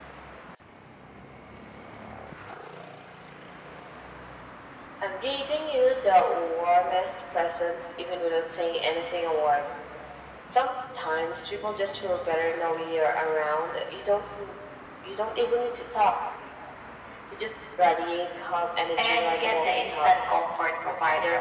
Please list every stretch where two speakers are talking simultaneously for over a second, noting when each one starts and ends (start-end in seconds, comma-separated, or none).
19.0-20.2